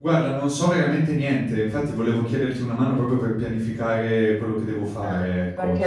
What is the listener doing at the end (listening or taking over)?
taking over